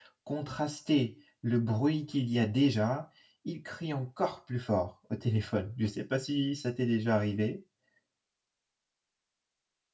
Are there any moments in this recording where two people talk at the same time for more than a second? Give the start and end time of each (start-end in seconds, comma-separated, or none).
none